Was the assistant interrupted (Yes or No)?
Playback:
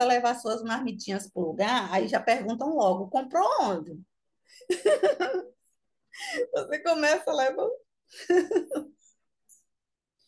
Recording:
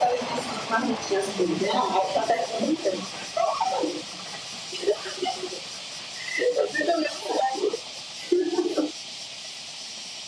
No